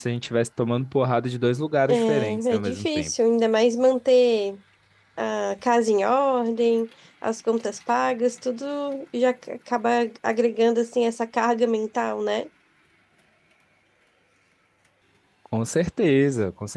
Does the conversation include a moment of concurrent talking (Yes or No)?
Yes